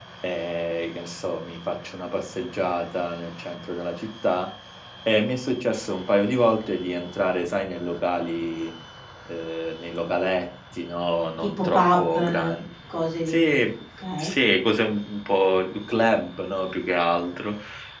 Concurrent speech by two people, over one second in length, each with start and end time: 11.4-12.6

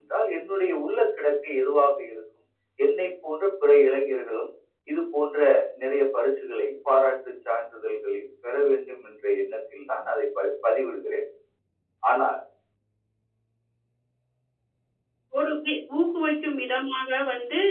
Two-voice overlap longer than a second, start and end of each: none

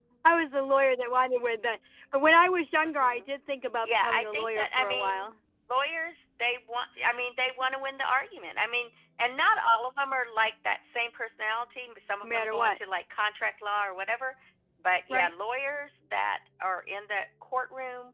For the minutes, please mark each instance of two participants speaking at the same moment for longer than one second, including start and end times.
3.8-5.3

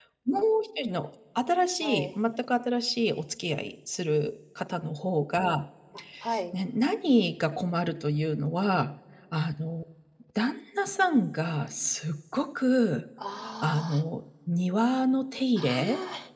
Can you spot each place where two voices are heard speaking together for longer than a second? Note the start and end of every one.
none

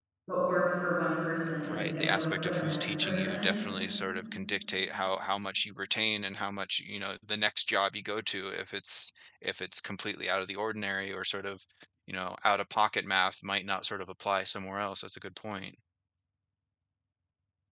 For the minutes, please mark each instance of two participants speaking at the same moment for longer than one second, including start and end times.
1.7-3.5

